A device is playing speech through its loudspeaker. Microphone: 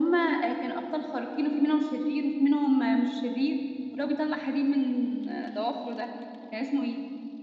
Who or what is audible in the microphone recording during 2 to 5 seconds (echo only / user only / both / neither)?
echo only